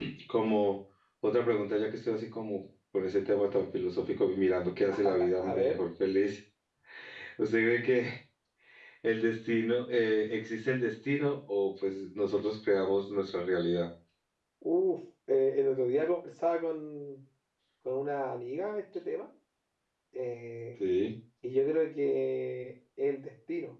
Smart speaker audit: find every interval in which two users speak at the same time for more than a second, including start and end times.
none

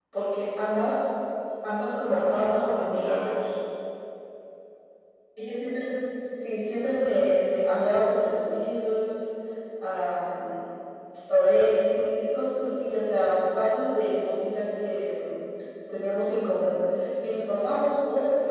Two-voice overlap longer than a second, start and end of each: 2.0-3.4

